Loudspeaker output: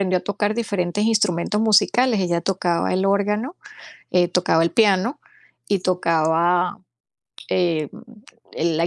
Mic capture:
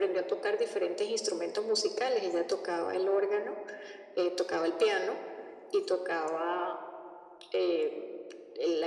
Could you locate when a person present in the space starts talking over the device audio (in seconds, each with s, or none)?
none